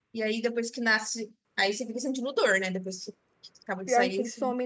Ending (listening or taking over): taking over